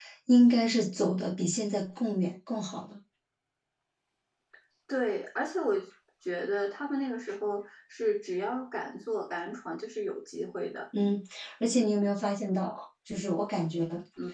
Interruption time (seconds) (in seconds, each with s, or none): none